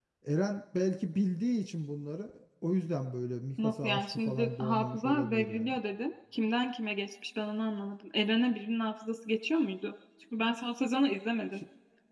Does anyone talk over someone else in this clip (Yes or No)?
Yes